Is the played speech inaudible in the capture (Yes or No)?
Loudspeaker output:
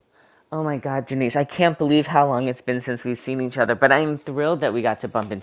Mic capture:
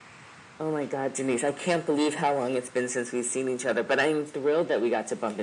No